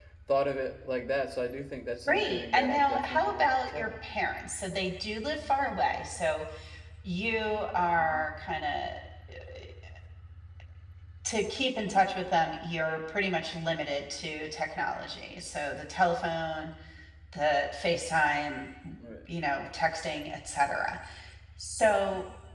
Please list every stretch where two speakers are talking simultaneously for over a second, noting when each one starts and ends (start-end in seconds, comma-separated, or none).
2.0-3.9